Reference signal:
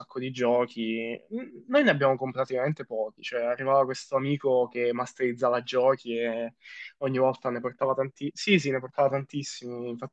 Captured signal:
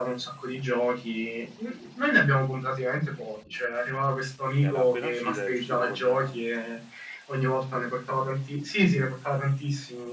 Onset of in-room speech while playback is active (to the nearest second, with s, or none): 5 s